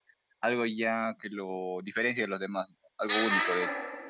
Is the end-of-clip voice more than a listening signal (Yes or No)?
Yes